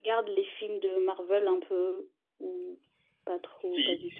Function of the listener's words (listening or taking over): taking over